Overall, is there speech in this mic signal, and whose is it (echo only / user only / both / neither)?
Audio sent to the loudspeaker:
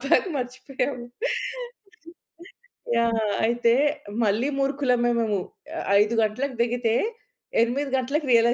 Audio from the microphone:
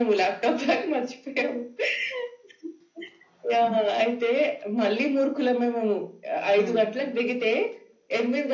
both